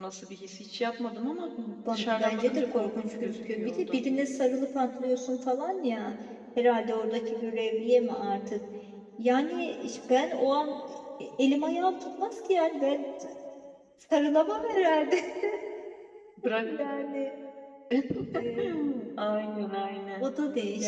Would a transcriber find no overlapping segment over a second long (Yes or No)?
No